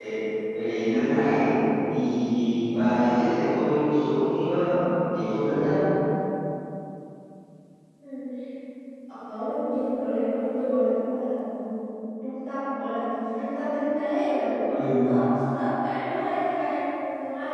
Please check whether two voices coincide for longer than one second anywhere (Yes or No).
No